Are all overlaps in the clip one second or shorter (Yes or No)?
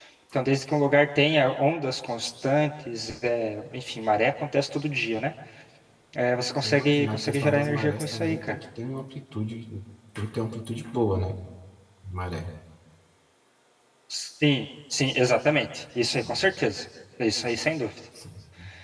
No